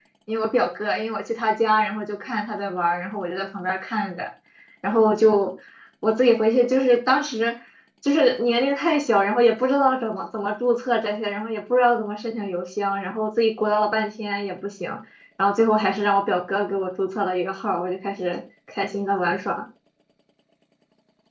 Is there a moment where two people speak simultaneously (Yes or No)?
No